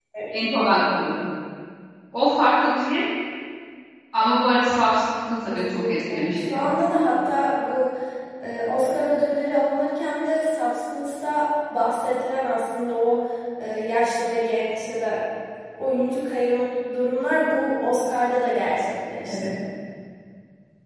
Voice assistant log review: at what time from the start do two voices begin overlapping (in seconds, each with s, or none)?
5.5 s